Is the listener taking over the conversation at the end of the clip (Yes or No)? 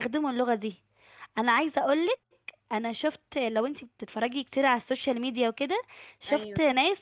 No